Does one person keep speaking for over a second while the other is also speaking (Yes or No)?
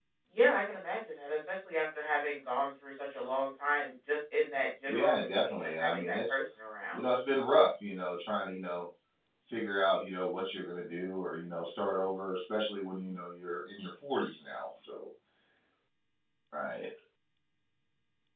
Yes